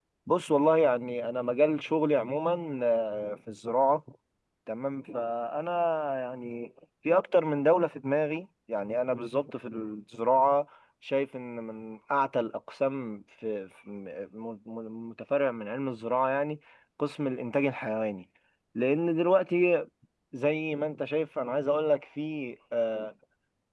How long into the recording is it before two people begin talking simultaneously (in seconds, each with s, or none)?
none